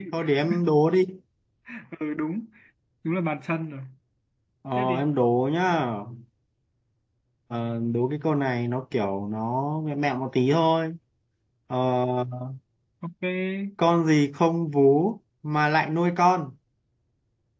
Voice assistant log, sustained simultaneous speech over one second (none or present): none